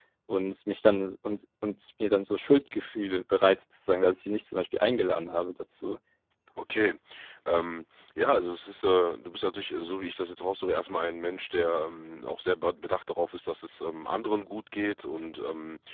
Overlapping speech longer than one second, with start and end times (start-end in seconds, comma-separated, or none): none